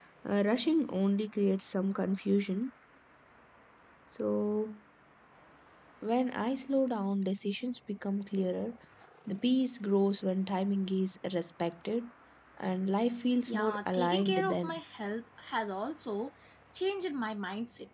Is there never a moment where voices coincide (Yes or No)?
No